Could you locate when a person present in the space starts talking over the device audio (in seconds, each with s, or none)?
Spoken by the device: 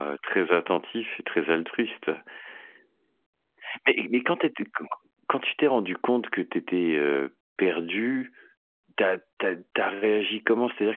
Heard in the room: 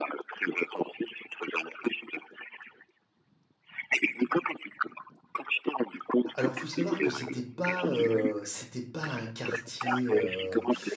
6.3 s